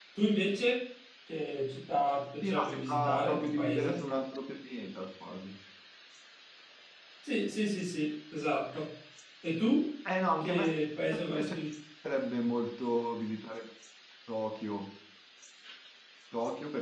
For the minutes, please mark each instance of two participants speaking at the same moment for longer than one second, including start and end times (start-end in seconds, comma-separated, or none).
2.4-4.0